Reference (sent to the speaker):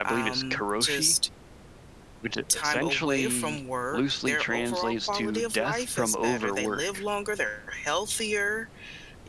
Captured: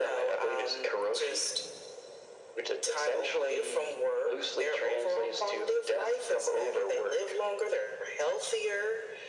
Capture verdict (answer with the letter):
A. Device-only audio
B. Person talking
A